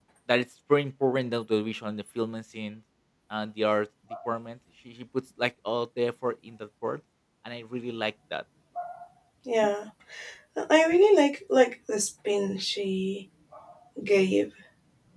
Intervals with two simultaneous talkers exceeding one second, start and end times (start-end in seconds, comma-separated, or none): none